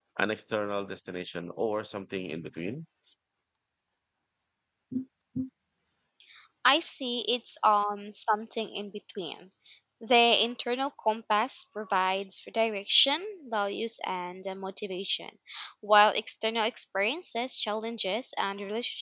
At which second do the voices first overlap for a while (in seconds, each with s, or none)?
none